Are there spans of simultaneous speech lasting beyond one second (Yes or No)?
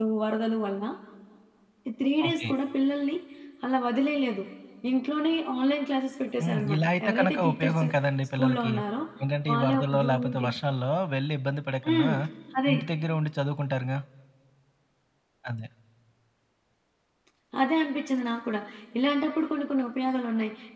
Yes